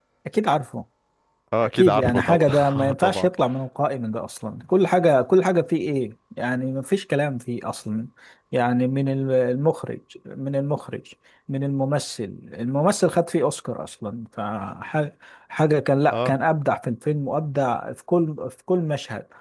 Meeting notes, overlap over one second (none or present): present